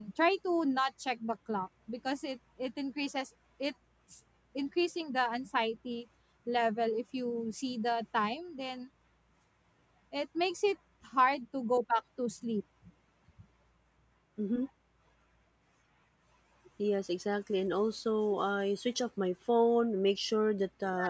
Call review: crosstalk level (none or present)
none